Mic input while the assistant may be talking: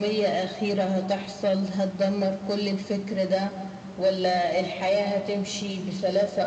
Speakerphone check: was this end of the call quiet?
Yes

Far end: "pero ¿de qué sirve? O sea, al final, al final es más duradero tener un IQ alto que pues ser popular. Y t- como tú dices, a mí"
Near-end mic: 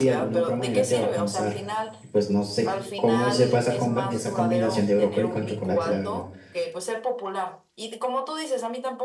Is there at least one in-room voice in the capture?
Yes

